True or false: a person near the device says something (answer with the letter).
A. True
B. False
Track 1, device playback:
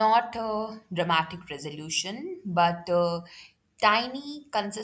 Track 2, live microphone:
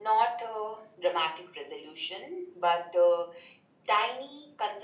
B